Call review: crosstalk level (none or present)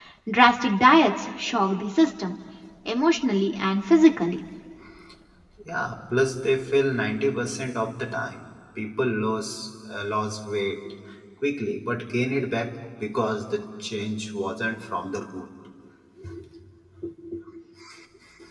none